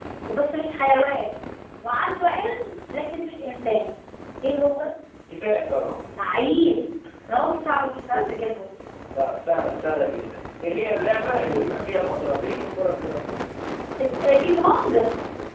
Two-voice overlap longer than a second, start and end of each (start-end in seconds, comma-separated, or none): none